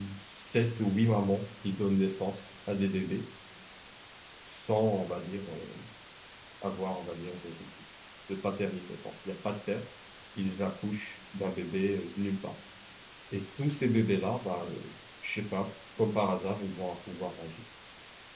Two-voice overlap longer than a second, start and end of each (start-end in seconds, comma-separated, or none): none